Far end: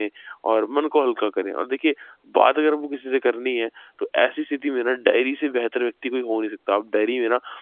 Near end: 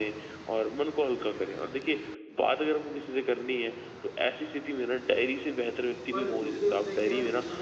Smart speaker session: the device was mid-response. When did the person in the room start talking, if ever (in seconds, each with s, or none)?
6.1 s